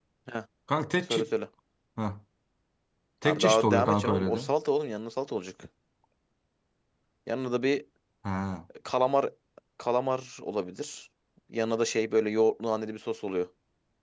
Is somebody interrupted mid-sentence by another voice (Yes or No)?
Yes